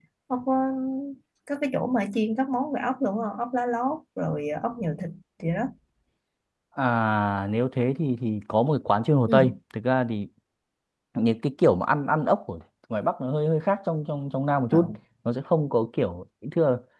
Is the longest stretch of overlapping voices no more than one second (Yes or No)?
Yes